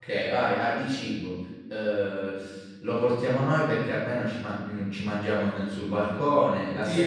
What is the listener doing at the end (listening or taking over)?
taking over